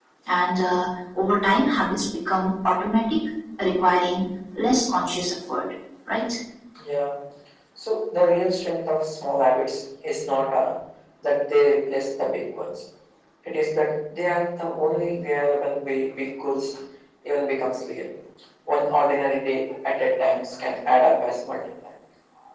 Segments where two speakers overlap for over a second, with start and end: none

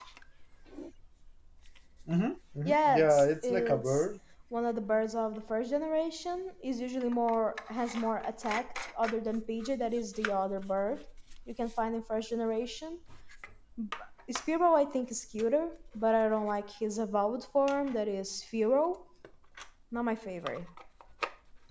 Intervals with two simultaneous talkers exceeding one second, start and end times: 2.6-4.0

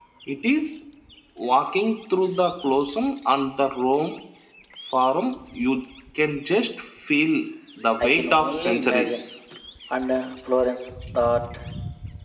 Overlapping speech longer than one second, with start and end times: 8.0-9.2

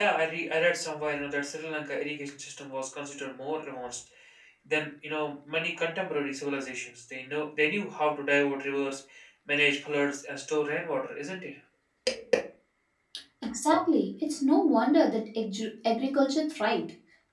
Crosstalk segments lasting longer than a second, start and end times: none

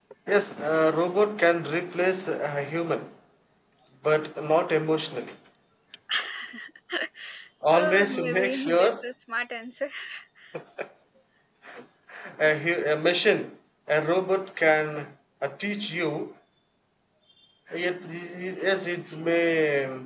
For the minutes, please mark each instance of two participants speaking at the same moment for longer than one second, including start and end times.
7.7-9.0

